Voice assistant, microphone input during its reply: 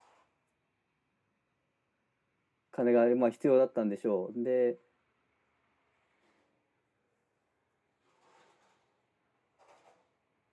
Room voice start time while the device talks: 2.7 s

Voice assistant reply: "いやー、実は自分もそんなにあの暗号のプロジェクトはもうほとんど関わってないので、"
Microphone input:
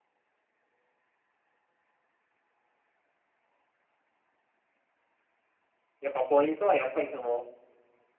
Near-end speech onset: 6.0 s

